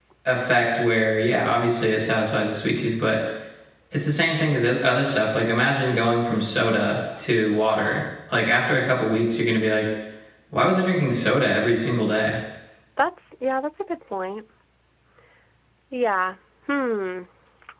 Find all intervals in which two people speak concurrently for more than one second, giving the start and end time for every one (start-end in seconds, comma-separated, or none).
none